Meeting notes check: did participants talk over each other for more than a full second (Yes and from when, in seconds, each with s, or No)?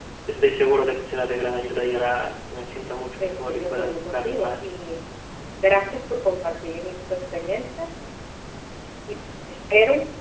Yes, from 3.2 s